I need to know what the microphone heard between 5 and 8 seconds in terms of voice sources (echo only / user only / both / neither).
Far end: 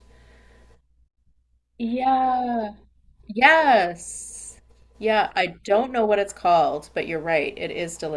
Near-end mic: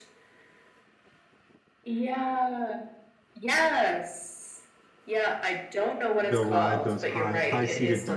both